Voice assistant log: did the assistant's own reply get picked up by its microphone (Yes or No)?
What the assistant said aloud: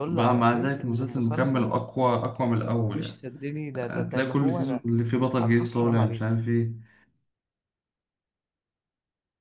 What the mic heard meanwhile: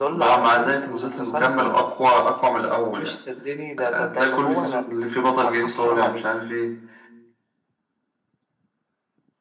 Yes